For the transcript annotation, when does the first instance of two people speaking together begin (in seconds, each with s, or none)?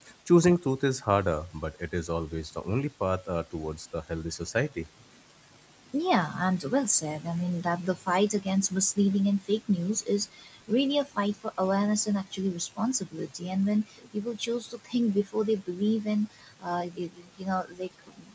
none